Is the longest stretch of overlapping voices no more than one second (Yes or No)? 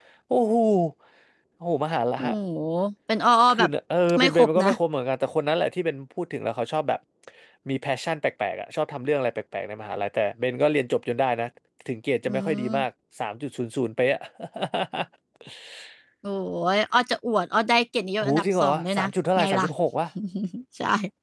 No